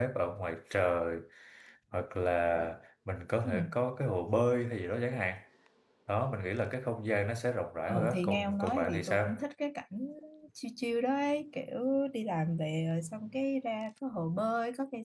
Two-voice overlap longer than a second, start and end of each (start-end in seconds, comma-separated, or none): 7.9-9.2